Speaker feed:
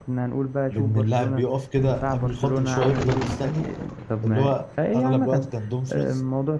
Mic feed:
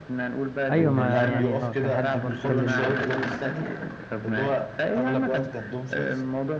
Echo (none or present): present